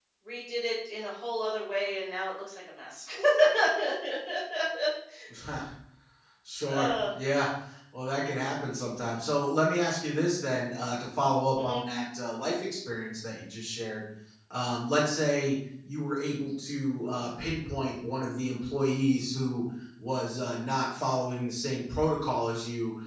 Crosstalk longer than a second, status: none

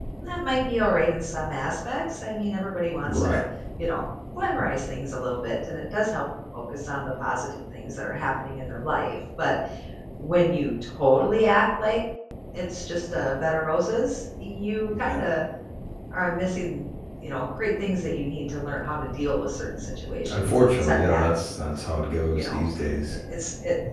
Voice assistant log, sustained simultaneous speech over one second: present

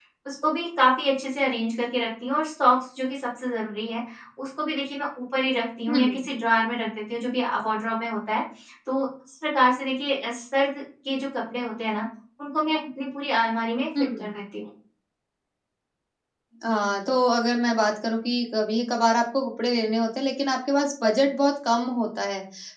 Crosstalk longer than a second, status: none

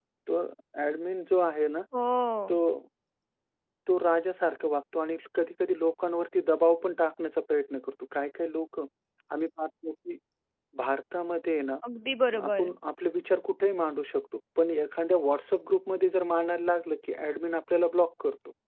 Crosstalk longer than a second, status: none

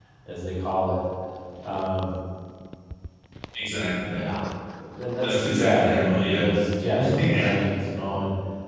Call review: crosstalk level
present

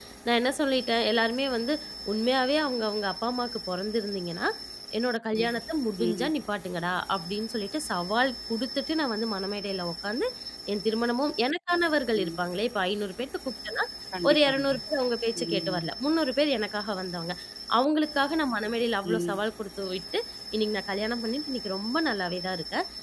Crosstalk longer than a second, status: none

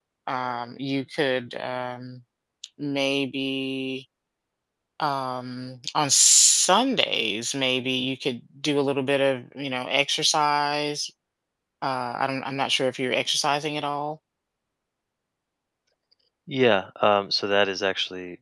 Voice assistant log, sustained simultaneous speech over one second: none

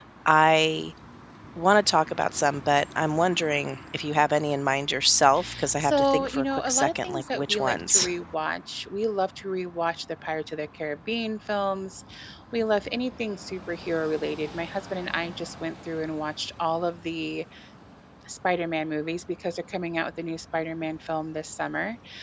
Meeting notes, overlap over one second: present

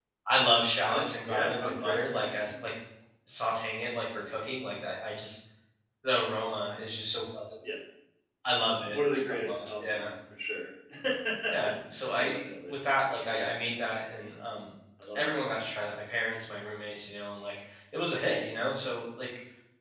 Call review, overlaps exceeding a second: present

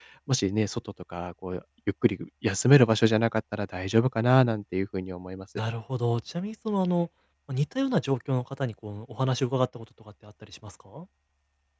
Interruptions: none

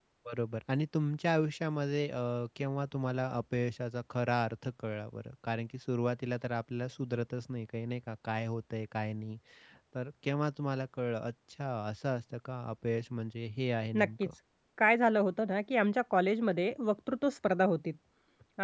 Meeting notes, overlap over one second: none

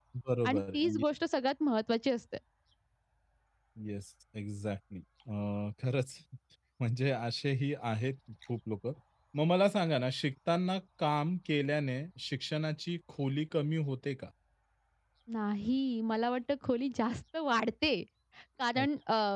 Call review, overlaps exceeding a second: none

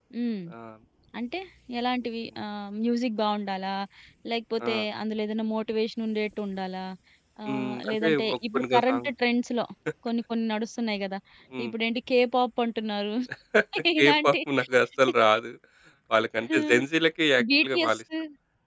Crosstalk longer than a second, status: present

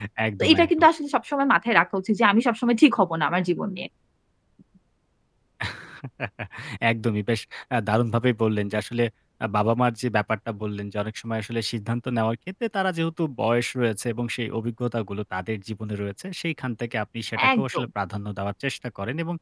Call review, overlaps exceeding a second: none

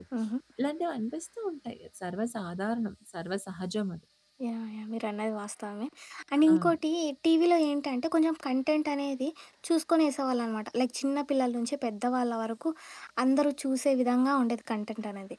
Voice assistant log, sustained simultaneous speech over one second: none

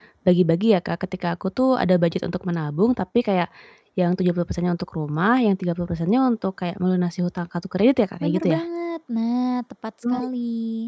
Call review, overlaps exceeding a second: none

